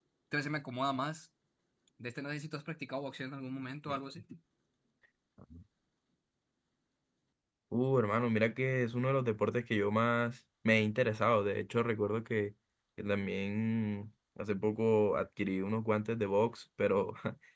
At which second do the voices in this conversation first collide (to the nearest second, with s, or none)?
none